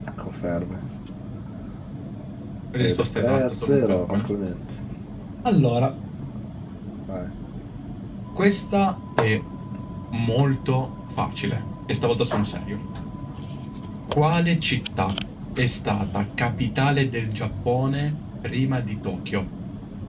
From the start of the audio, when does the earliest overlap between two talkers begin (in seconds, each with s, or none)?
2.8 s